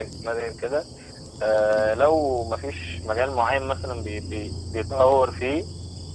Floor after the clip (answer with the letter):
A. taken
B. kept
B